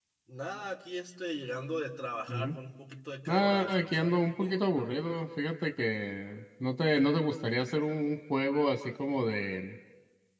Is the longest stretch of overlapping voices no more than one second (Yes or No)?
No